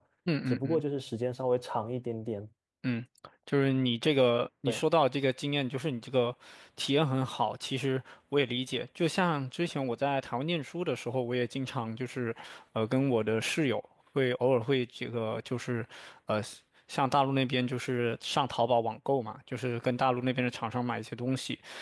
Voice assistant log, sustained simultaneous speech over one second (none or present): none